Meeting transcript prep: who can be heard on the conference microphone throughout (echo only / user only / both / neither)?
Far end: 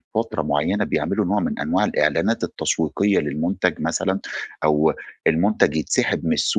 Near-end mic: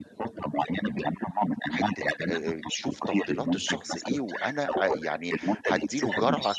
both